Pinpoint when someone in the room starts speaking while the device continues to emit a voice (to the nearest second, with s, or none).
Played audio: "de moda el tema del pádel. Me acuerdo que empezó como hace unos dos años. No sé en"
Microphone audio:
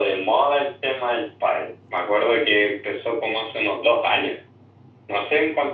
none